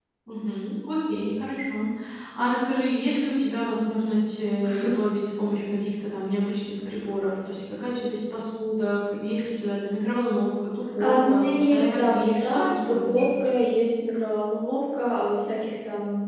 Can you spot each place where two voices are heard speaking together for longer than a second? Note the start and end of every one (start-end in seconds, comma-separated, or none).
11.0-13.7